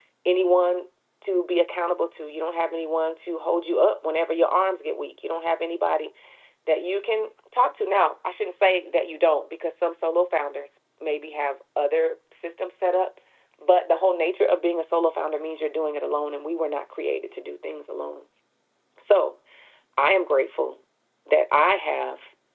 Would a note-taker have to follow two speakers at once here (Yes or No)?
No